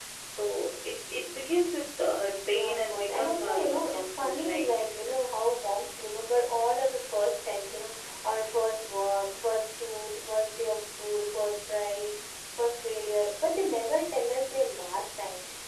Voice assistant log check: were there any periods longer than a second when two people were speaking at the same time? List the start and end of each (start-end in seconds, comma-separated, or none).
2.5-4.8